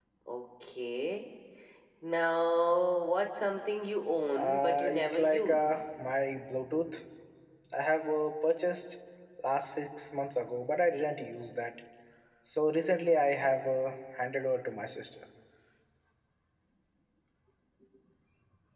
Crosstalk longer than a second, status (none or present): present